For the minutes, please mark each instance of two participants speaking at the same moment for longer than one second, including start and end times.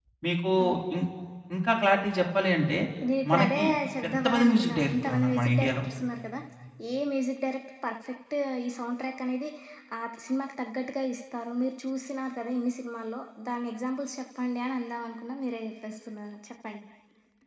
4.0-5.8

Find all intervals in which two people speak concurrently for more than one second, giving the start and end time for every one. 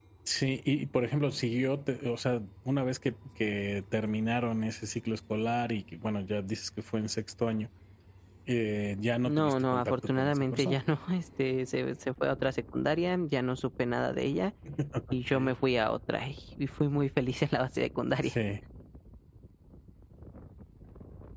9.2-10.8

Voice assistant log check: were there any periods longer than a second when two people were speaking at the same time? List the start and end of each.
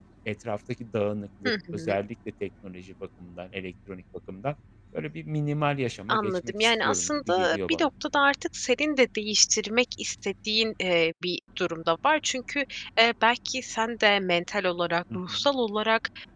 6.1-7.9

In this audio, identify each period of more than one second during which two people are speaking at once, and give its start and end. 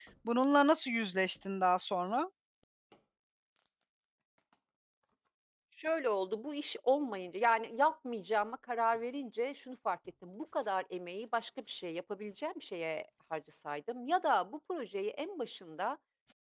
none

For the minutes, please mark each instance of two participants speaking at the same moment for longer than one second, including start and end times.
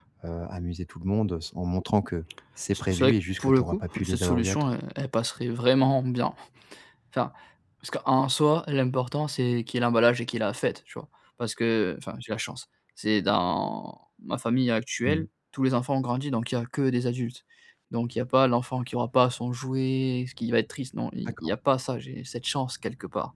2.7-4.7

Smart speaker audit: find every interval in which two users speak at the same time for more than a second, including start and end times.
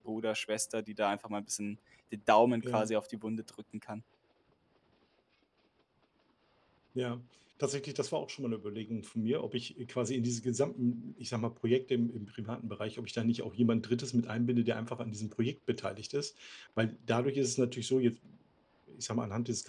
none

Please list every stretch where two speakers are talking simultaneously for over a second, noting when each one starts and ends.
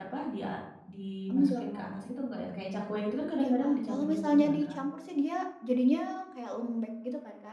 3.4-4.8

